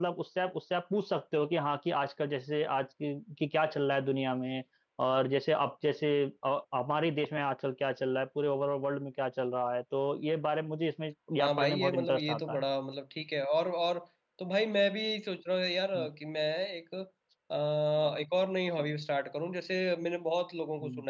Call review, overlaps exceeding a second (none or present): present